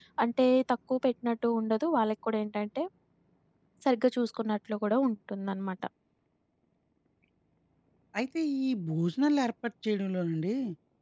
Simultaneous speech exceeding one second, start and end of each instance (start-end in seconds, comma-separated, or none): none